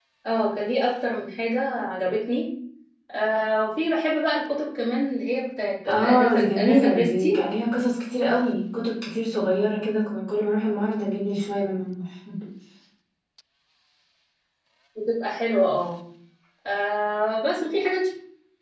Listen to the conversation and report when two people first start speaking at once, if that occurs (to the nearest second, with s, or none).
6 s